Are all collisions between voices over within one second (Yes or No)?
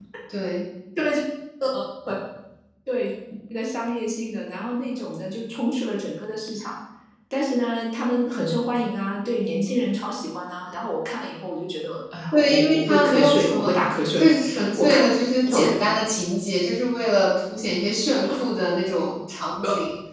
No